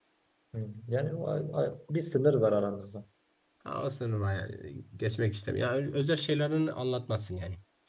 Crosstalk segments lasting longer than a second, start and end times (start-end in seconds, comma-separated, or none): none